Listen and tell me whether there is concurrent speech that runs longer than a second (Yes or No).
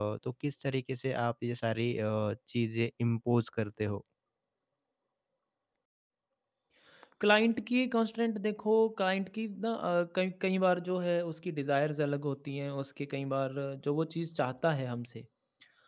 No